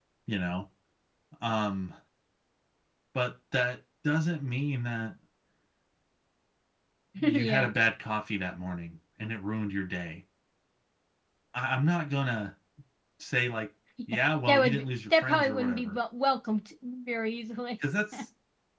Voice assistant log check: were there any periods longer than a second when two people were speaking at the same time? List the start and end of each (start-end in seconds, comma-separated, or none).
14.1-16.0